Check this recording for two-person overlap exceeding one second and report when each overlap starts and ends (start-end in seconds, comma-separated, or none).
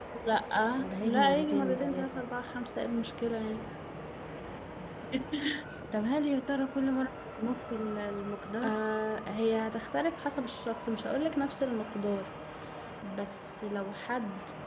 1.0-2.2